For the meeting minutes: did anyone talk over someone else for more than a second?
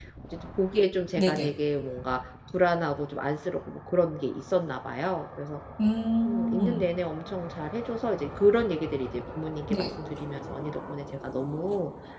No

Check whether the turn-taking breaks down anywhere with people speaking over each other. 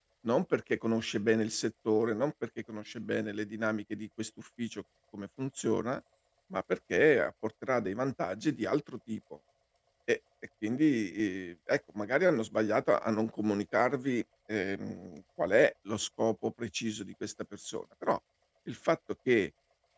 No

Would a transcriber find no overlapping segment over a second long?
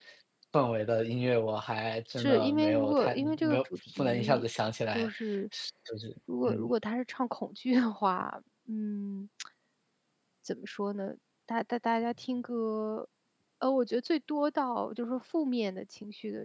No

